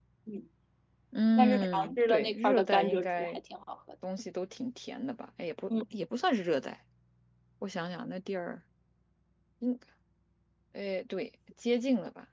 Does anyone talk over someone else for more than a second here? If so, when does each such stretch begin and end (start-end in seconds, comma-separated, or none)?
1.4-3.4